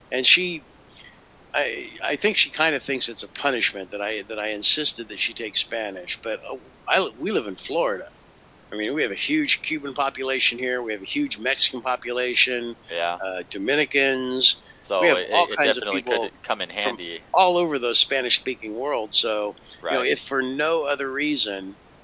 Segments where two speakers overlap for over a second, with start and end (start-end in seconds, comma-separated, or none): 15.0-16.3